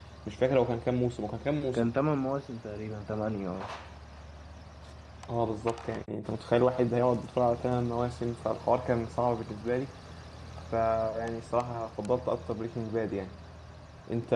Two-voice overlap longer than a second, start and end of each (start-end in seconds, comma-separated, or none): none